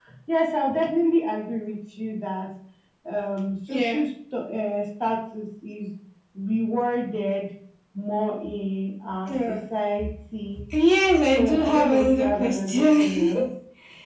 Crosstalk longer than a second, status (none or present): present